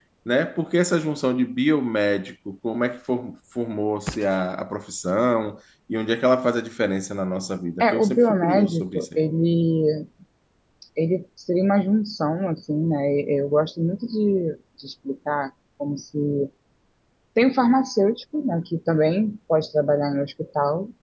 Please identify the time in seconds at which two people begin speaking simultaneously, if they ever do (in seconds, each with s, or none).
7.8 s